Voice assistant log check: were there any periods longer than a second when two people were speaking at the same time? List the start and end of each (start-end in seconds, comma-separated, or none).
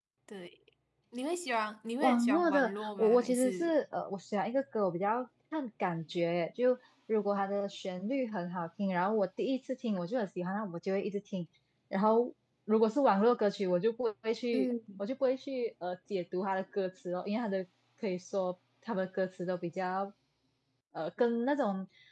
2.0-3.7